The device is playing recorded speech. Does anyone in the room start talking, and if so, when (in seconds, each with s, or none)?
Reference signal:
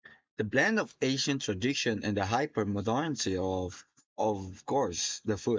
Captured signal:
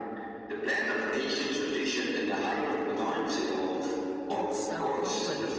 4.3 s